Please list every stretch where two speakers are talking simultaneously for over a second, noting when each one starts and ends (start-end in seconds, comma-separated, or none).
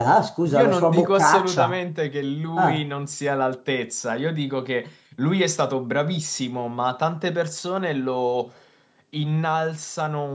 0.5-1.8